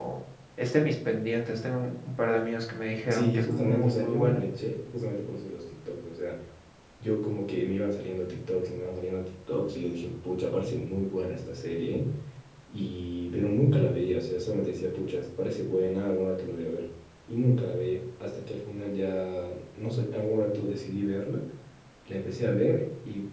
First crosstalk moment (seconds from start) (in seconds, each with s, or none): 3.1 s